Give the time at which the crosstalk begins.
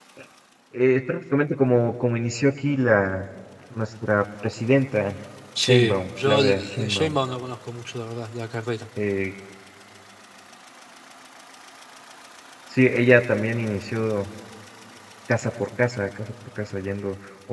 5.6 s

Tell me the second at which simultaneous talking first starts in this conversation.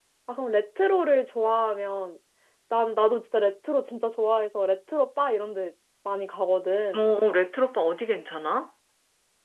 none

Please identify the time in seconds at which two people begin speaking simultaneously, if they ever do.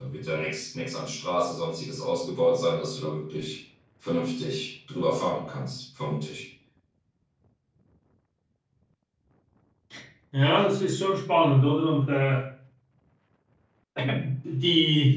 none

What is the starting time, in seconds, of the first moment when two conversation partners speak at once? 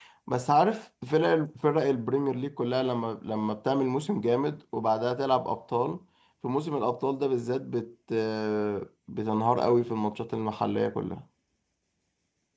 none

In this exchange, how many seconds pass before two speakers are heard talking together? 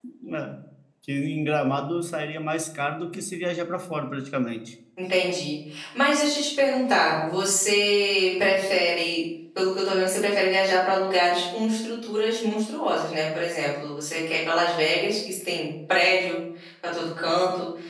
none

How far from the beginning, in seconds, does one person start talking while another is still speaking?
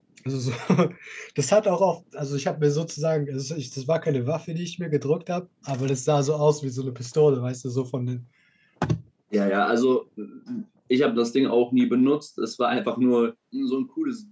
none

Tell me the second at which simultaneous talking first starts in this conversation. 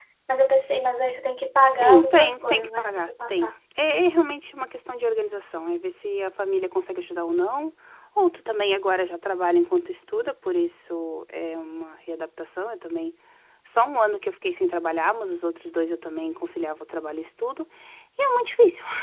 1.7 s

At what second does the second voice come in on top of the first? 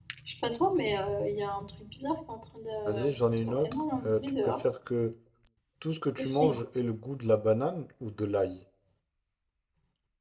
2.9 s

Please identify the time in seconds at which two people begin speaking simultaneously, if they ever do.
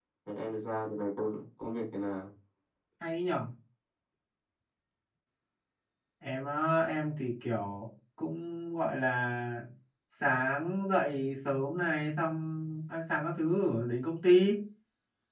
none

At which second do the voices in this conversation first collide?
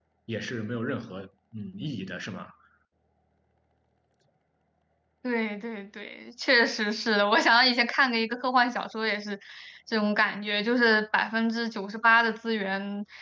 none

